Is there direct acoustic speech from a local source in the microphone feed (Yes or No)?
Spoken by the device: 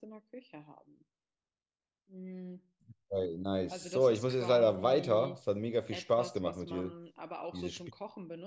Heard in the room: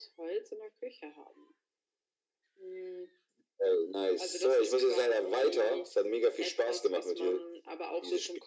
No